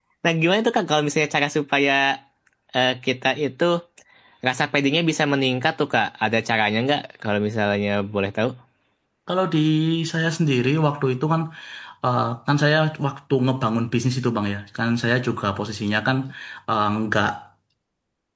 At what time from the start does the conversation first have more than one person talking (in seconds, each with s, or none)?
none